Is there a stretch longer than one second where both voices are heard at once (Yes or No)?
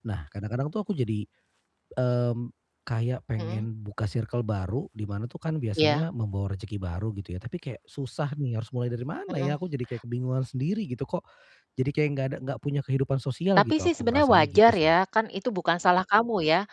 Yes